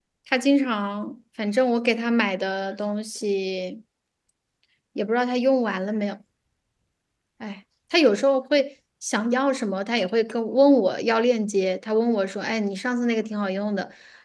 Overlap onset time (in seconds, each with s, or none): none